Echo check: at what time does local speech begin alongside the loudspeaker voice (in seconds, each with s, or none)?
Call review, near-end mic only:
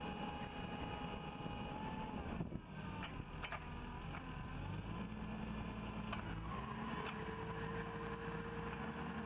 none